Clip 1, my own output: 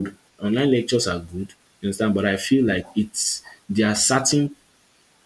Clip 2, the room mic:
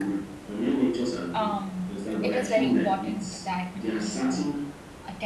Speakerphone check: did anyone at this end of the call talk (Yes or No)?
Yes